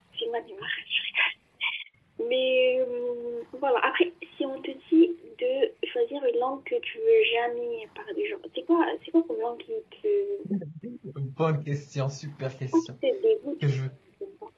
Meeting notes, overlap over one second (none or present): none